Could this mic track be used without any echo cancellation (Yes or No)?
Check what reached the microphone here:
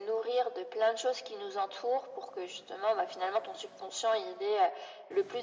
No